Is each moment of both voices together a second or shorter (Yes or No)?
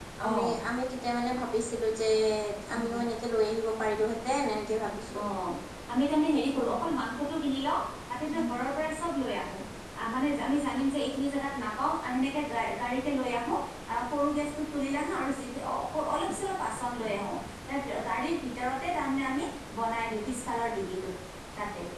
Yes